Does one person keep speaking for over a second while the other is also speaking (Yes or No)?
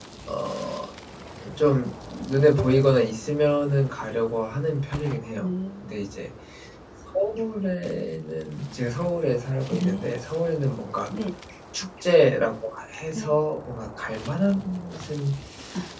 No